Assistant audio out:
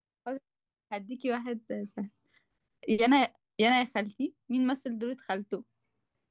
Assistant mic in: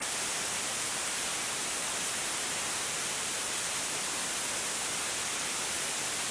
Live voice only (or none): none